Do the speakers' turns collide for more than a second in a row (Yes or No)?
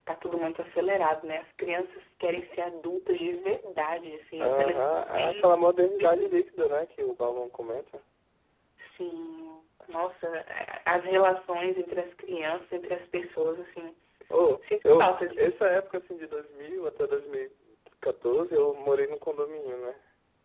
Yes